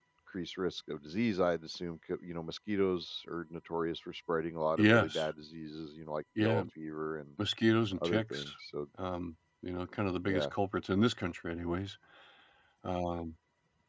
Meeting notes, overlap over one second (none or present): none